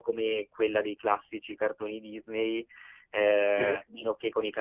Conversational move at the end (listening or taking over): listening